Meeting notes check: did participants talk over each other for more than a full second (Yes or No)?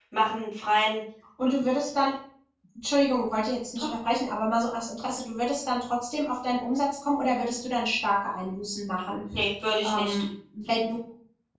No